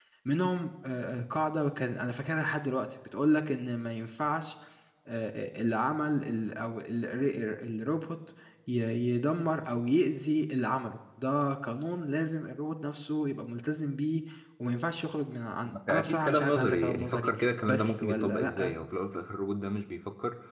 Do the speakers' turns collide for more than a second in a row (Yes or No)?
Yes